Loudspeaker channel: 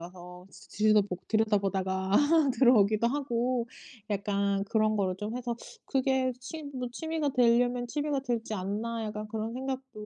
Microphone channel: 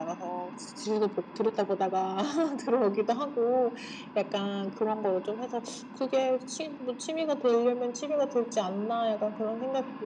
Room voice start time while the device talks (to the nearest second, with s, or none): none